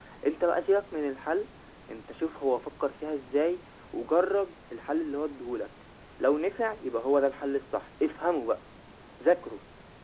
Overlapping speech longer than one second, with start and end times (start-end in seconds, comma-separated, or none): none